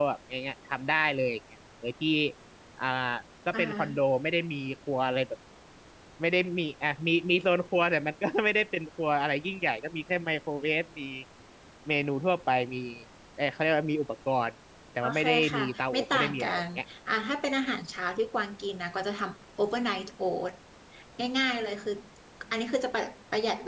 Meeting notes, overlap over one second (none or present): present